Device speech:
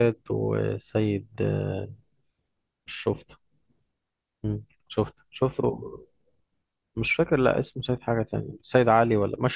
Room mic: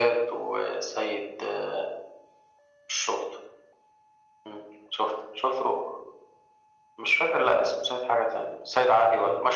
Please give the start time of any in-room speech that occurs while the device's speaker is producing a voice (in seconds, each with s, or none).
none